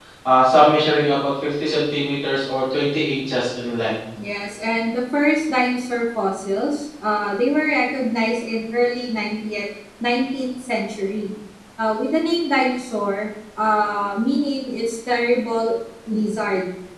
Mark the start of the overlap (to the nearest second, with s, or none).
none